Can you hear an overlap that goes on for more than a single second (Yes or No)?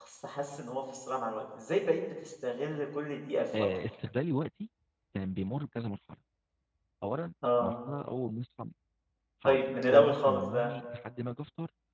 Yes